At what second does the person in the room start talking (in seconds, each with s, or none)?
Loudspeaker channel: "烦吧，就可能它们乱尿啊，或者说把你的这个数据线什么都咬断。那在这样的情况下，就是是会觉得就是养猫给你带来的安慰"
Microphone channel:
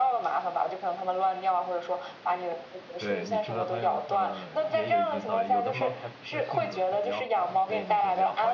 3.0 s